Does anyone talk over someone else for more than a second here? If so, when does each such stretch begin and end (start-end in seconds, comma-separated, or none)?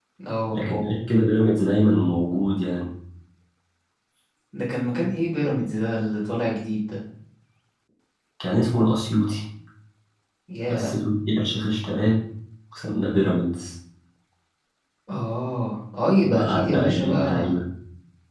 16.2-17.6